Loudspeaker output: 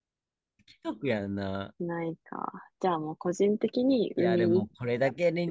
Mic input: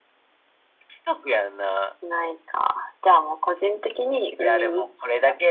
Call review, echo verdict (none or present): present